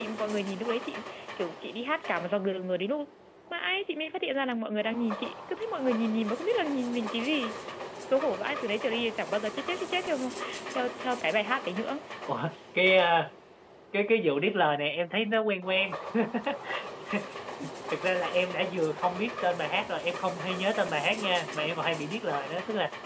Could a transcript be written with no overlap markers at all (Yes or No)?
Yes